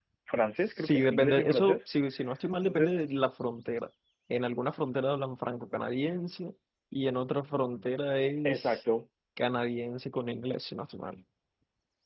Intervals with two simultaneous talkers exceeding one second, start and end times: 0.6-1.9

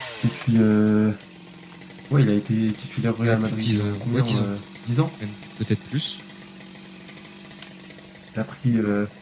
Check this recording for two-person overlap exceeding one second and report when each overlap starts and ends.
3.2-4.5

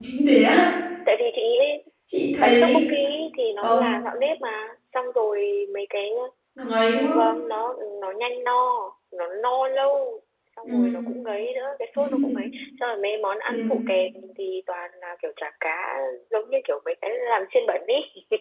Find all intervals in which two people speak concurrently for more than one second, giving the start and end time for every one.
none

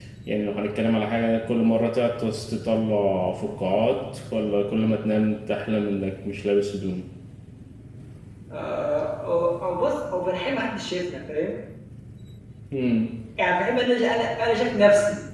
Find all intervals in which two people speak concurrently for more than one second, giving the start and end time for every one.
none

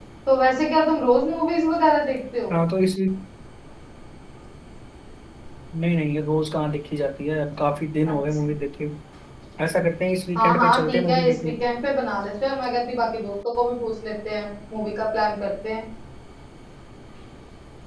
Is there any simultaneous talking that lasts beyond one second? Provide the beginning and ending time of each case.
10.4-11.6

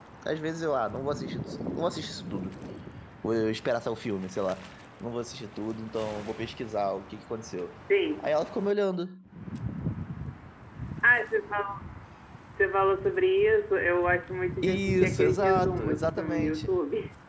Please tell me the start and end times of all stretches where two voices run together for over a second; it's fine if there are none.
14.6-16.7

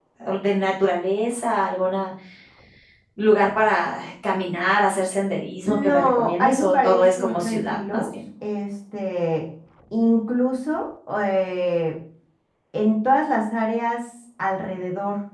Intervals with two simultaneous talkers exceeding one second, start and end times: 5.6-8.0

